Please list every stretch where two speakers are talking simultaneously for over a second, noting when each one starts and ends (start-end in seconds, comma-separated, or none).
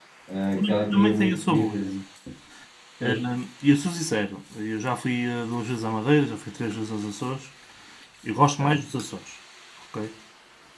0.5-1.8